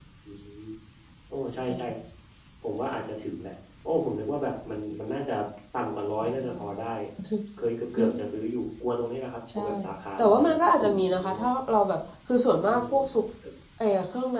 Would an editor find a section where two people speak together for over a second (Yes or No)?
Yes